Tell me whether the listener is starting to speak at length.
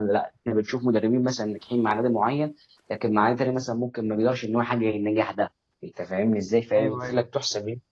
No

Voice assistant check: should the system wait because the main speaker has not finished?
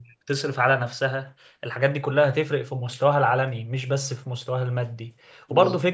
Yes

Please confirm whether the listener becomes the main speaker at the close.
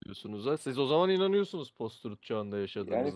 Yes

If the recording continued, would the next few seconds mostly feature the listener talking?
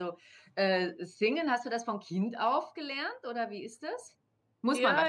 Yes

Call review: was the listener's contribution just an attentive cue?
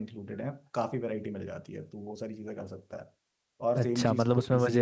No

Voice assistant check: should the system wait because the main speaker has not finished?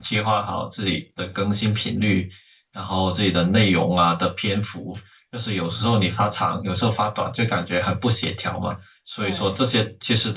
Yes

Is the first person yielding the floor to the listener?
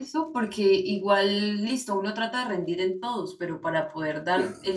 No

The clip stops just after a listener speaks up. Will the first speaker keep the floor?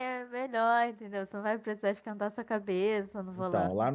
No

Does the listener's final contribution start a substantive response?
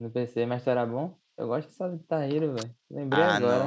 Yes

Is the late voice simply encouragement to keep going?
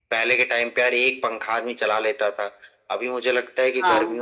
Yes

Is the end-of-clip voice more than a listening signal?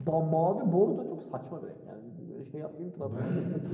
Yes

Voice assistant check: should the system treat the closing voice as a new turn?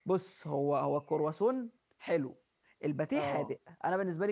No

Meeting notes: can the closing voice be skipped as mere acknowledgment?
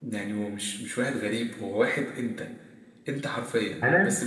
Yes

